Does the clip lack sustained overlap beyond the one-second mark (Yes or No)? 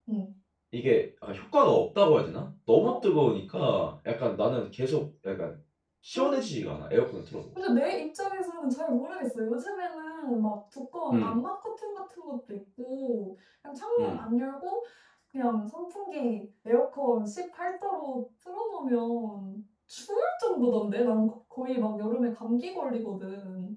Yes